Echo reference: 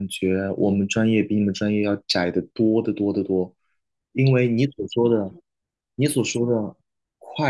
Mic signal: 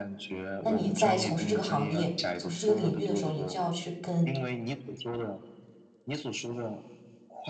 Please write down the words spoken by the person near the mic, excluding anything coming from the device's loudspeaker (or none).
那你在从事这个行业、从事这个领域的时候，你就要去跟